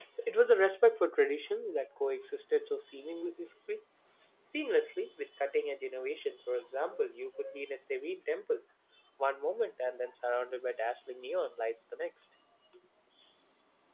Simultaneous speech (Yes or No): No